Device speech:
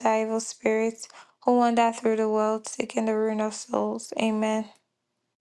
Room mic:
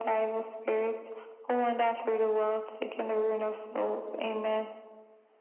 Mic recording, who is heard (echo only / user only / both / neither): echo only